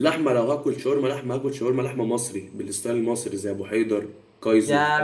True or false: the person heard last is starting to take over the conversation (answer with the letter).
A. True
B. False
A